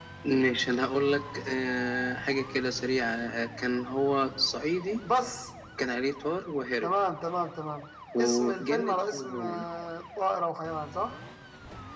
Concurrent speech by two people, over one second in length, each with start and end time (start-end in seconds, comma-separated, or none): 8.2-9.6